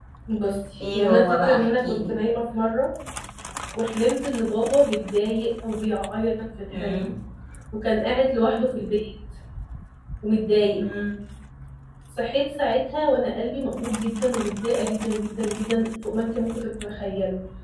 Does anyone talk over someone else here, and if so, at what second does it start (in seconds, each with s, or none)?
0.9 s